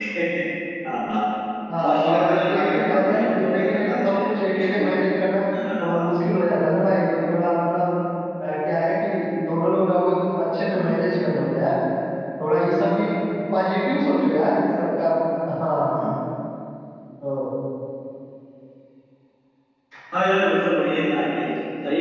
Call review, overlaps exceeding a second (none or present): present